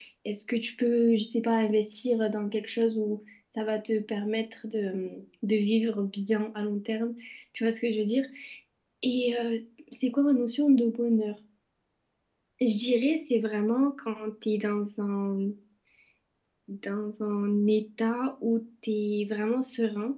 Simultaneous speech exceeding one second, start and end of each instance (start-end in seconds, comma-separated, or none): none